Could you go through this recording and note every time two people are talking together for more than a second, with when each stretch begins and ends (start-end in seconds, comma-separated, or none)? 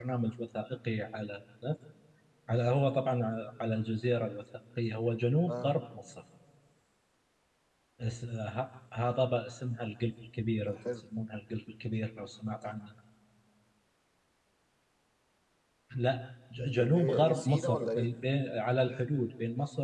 16.8-18.1